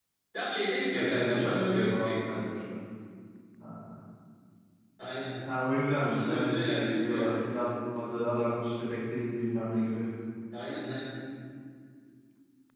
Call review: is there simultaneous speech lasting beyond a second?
Yes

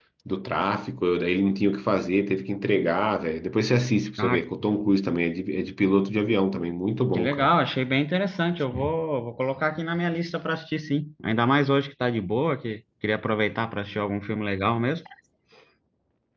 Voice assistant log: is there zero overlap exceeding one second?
Yes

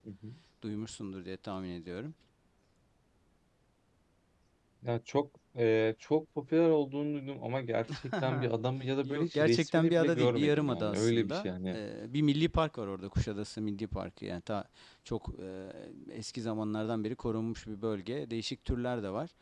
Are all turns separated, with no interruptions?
No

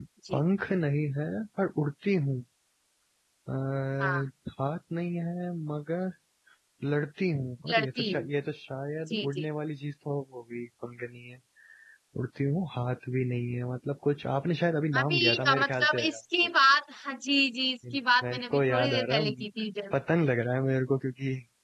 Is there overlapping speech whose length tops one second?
Yes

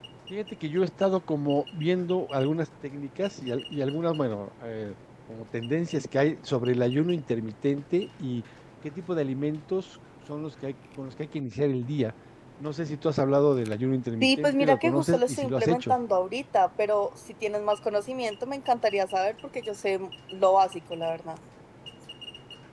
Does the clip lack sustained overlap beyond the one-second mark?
No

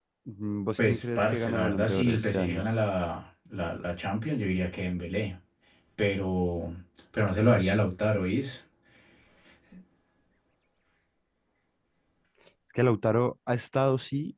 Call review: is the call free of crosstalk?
No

